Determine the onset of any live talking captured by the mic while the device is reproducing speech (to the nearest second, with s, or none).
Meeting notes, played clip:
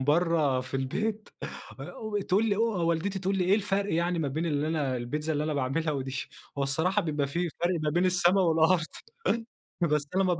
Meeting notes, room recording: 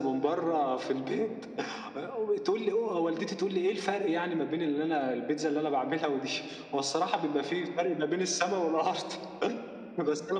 none